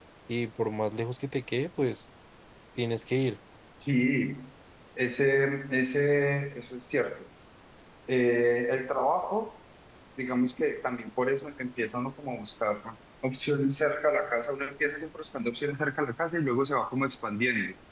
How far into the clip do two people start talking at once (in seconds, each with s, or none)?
none